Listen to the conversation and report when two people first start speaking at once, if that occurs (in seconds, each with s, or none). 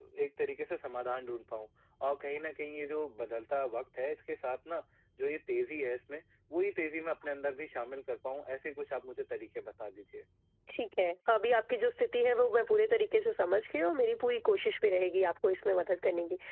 none